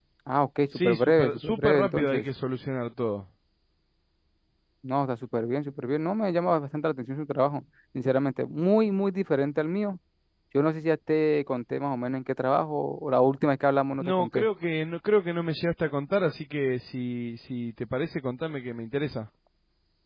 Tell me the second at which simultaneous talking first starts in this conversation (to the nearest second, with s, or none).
1 s